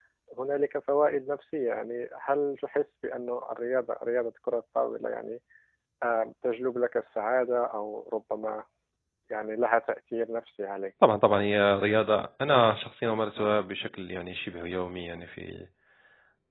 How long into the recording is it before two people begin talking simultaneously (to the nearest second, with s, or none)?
none